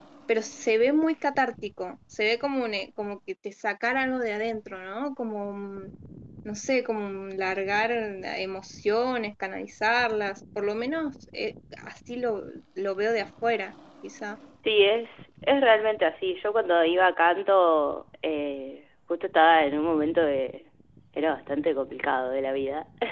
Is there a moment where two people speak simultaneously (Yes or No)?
No